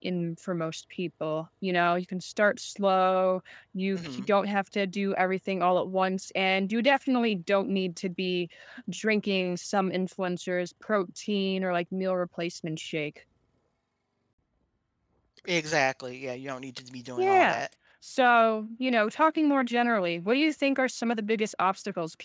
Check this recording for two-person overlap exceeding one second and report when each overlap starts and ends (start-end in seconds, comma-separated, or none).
none